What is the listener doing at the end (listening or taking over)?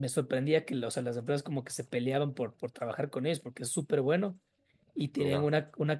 listening